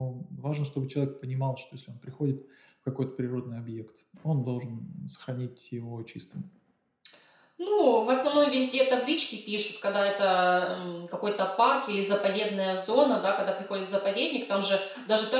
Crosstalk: none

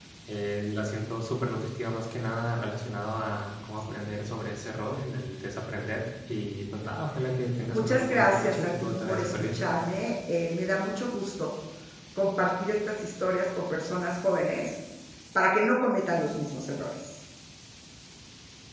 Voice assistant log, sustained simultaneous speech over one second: present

